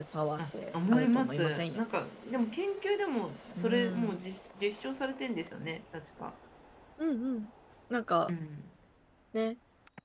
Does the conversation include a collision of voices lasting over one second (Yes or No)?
Yes